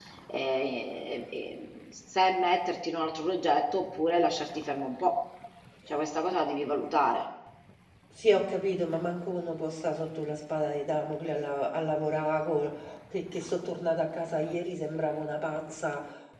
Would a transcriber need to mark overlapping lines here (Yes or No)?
No